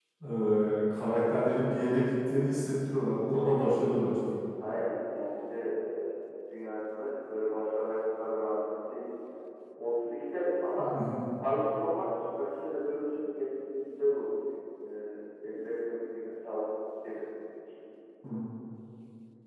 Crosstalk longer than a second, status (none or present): none